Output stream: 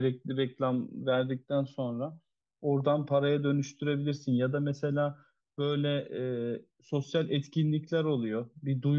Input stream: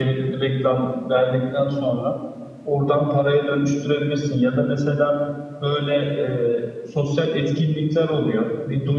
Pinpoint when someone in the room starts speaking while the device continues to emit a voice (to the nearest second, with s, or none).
none